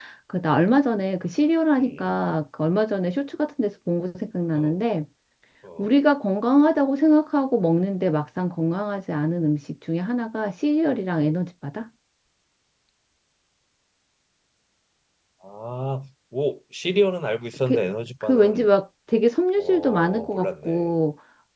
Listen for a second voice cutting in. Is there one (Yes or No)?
Yes